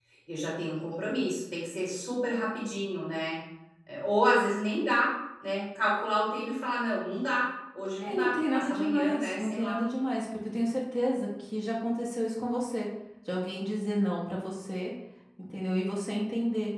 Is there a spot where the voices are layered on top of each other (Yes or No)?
Yes